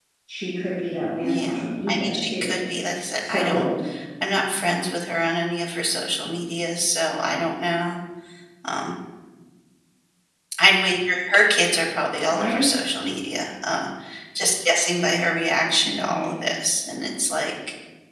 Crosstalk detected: Yes, from 1.2 s

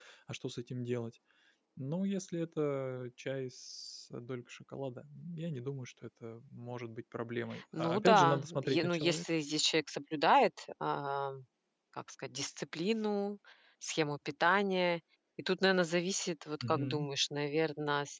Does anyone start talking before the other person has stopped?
Yes, from 7.8 s

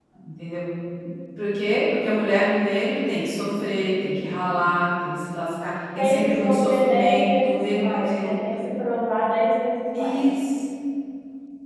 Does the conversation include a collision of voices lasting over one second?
Yes, from 6.0 s

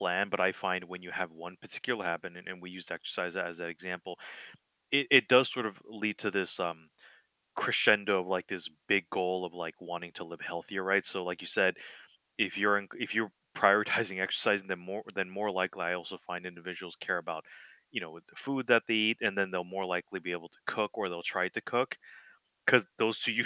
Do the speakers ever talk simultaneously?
No

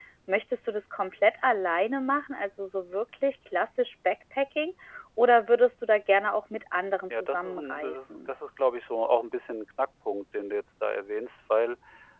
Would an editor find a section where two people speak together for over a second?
Yes, from 7.1 s

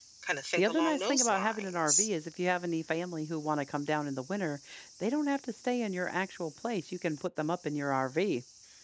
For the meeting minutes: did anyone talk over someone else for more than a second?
Yes, from 0.6 s

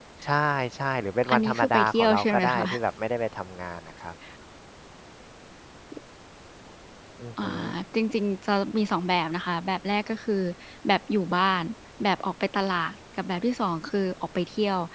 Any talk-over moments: Yes, from 1.3 s

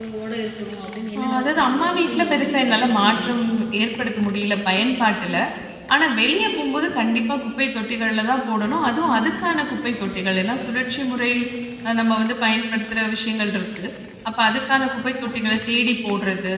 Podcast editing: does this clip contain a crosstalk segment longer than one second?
Yes, from 1.2 s

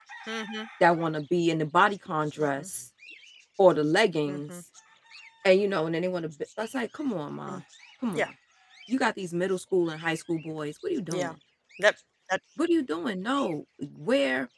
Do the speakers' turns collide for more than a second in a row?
No

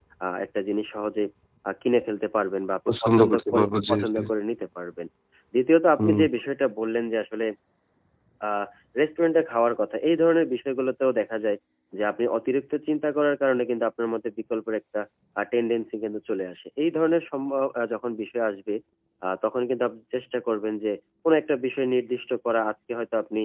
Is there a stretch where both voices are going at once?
Yes, from 2.9 s

